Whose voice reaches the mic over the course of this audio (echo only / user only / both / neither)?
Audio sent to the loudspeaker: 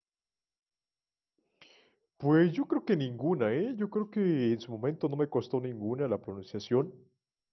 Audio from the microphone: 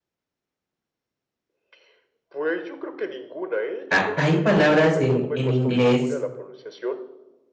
both